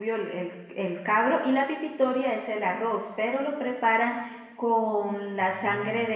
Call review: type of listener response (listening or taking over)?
listening